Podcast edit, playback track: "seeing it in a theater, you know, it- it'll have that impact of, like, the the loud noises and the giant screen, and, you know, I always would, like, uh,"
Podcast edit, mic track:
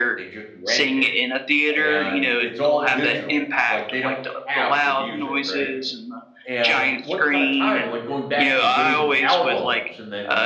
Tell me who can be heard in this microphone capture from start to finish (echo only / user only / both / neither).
both